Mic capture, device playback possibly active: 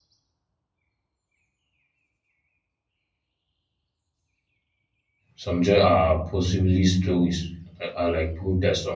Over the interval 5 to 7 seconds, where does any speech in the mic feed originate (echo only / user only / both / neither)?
user only